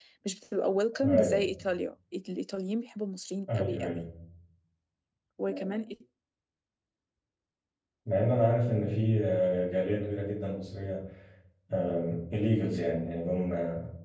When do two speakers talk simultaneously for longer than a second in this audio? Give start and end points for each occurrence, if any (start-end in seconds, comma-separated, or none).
none